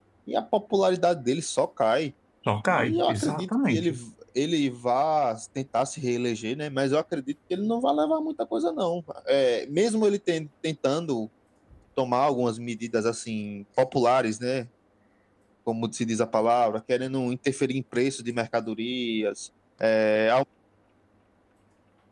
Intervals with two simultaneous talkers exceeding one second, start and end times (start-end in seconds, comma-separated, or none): 2.7-3.9